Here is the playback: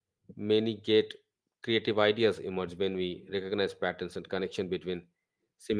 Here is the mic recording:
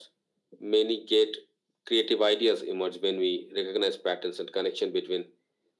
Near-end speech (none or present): none